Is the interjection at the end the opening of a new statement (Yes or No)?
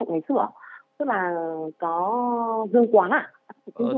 Yes